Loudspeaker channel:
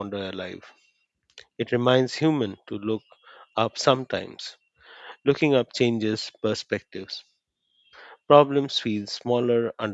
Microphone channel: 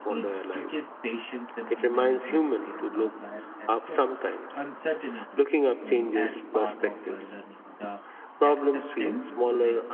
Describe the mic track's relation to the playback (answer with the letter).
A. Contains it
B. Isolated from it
A